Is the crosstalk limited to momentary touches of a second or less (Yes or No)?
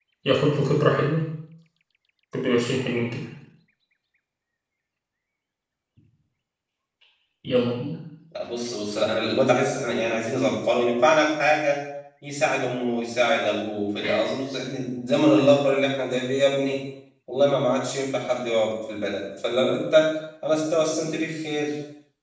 Yes